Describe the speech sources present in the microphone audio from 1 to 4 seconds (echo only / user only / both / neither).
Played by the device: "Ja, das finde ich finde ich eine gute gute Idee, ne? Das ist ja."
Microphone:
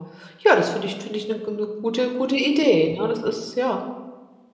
echo only